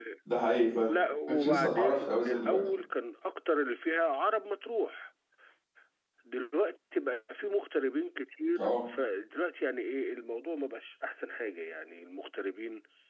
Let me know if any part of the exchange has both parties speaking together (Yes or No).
Yes